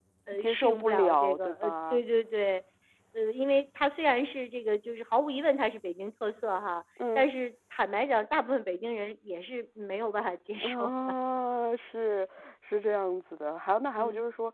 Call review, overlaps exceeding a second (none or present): present